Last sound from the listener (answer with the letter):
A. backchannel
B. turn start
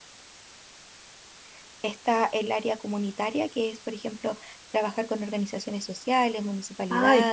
B